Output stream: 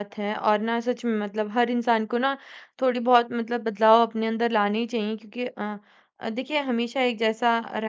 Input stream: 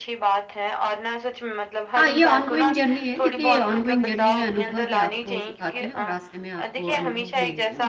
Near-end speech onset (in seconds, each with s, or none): 2.0 s